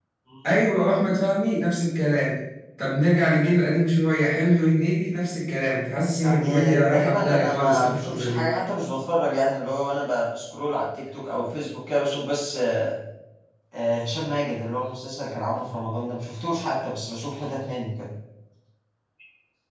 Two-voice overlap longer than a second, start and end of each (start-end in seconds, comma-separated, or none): 6.2-8.5